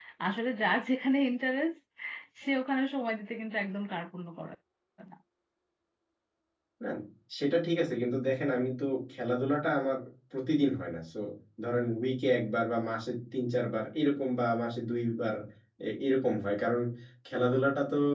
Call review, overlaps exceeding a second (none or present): none